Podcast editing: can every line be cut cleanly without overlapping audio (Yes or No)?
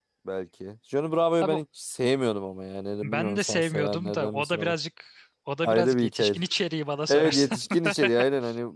No